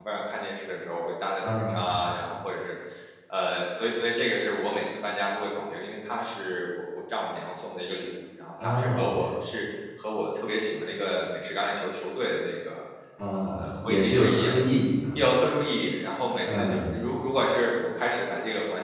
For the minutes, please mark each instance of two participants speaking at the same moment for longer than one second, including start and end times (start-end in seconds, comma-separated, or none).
13.3-14.5